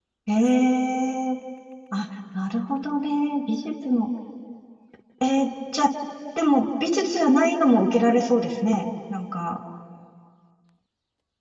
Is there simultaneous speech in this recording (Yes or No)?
No